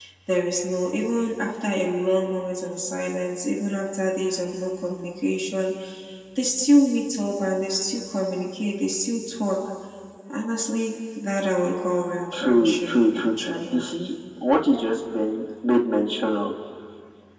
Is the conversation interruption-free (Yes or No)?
No